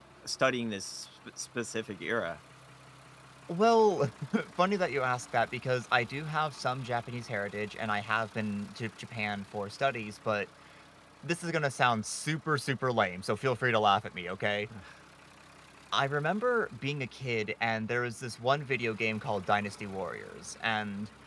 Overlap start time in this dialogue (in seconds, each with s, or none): none